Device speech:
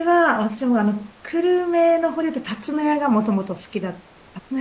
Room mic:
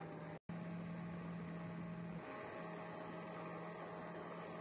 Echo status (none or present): none